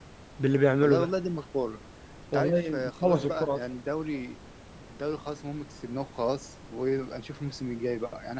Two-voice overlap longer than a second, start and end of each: 2.3-3.6

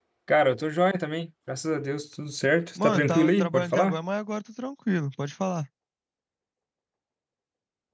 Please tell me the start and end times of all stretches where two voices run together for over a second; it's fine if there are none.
2.8-4.0

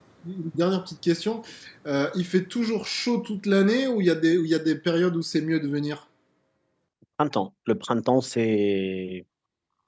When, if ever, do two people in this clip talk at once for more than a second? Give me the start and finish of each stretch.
none

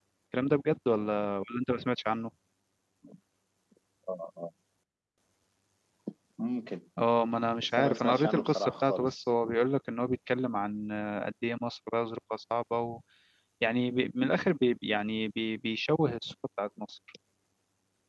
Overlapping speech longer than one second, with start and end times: 7.7-9.2

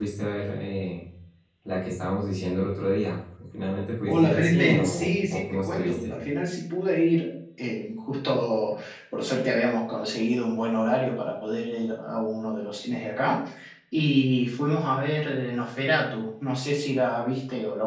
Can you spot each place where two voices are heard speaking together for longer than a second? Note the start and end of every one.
4.1-6.1

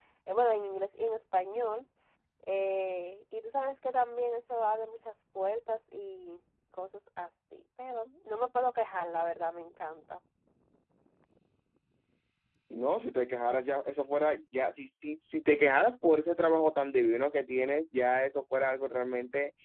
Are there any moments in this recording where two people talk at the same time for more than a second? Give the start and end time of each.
none

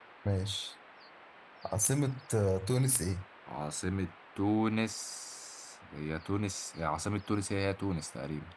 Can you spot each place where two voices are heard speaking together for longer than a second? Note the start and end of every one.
none

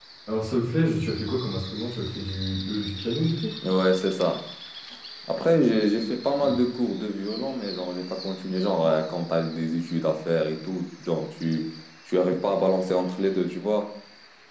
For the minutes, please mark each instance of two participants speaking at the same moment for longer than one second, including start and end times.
none

